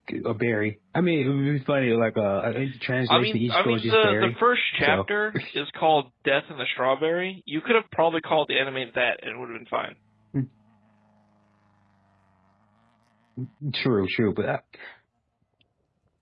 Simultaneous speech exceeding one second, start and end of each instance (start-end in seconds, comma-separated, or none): 3.1-4.4